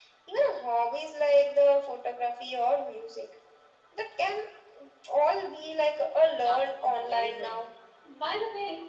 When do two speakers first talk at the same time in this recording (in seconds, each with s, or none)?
6.4 s